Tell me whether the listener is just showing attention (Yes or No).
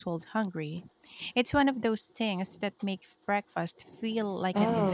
No